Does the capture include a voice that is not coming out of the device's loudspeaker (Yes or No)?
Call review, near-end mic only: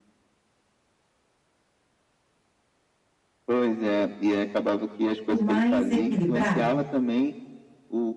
Yes